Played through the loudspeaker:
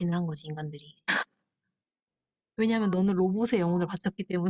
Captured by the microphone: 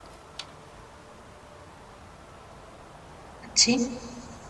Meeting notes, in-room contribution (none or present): present